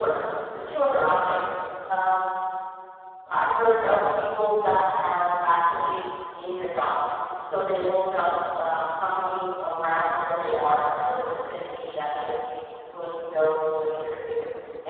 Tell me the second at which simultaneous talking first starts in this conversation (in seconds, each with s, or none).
none